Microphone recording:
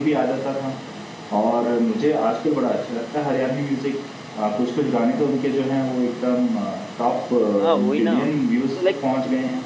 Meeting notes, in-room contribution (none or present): present